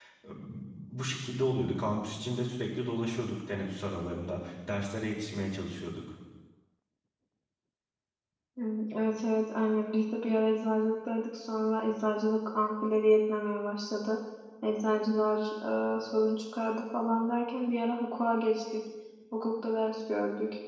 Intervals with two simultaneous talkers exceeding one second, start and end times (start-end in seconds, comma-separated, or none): none